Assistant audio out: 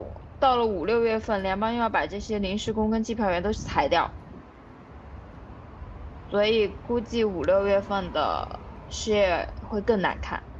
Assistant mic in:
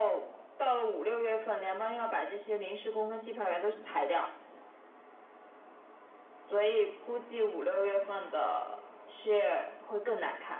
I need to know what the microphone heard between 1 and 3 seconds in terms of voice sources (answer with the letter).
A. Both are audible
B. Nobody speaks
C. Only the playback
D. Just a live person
C